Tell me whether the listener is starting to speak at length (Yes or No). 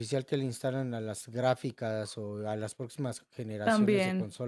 No